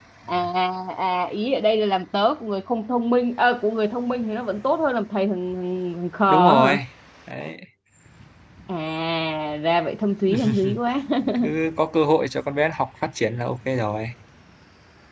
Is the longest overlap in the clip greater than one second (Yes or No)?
No